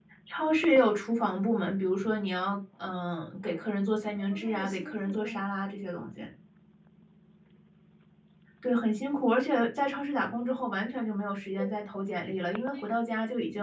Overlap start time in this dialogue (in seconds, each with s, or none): 4.2 s